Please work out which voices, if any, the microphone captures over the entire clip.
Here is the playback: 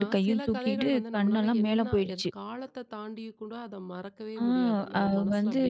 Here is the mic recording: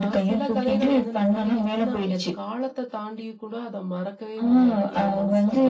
echo only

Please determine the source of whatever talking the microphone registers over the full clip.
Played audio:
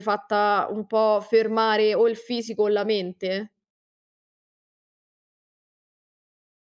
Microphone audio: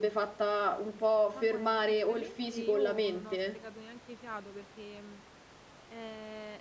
both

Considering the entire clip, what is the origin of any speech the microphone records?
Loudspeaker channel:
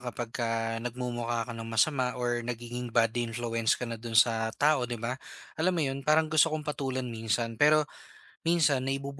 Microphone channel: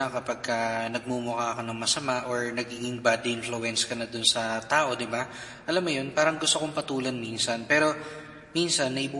echo only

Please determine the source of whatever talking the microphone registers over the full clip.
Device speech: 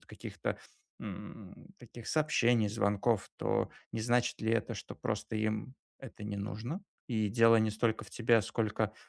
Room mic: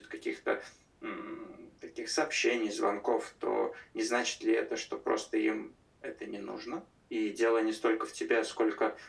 echo only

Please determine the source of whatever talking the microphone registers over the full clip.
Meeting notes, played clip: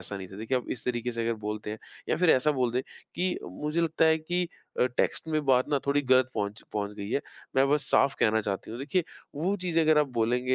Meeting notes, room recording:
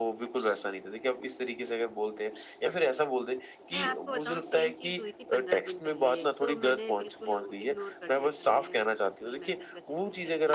both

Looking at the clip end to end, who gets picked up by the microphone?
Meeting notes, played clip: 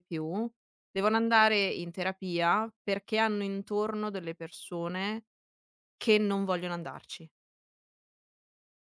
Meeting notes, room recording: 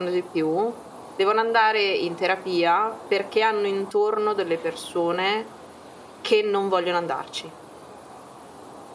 echo only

